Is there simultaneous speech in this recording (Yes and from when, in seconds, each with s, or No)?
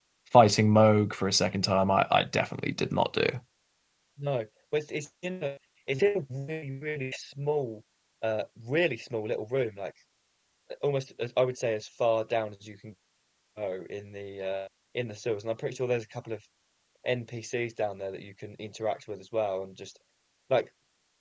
No